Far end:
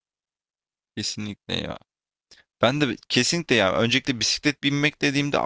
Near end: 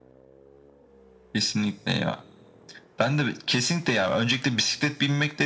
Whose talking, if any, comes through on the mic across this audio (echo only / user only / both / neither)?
echo only